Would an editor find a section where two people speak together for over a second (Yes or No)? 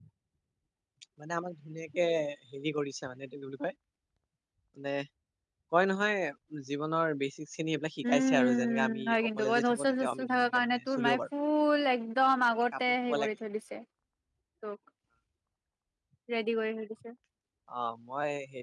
Yes